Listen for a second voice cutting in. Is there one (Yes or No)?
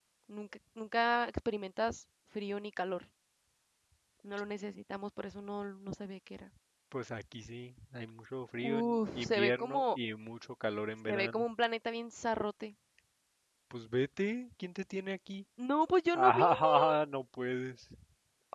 Yes